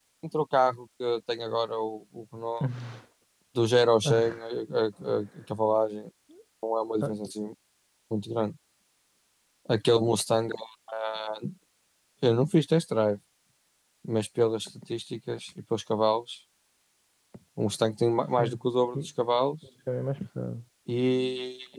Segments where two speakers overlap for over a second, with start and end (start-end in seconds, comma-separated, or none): none